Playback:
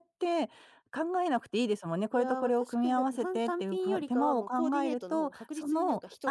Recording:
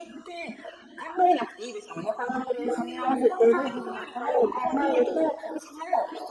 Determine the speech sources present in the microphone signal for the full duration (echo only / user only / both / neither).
both